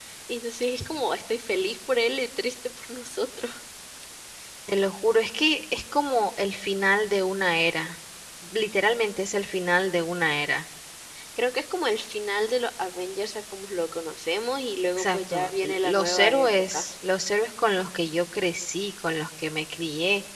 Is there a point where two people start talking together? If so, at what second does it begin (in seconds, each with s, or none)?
15.0 s